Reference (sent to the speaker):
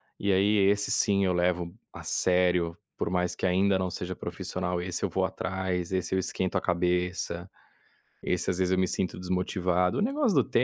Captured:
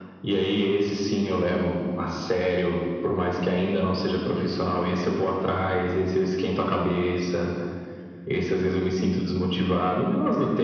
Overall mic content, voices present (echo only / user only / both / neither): echo only